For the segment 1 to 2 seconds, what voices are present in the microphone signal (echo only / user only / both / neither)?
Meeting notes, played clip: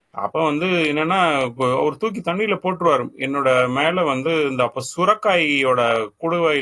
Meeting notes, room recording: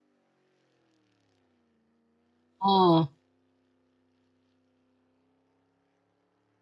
neither